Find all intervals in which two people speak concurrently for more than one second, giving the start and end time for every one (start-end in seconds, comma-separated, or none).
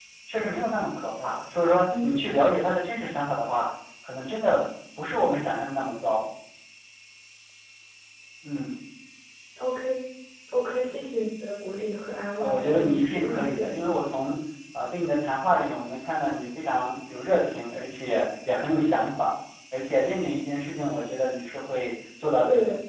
12.4-13.8